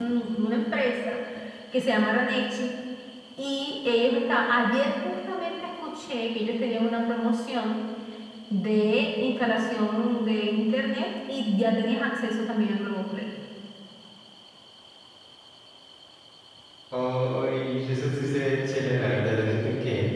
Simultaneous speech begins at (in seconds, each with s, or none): none